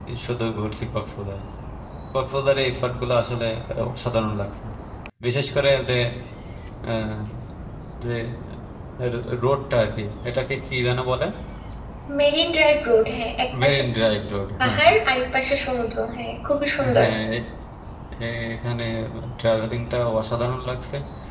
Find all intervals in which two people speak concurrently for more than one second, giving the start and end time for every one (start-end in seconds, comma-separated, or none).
none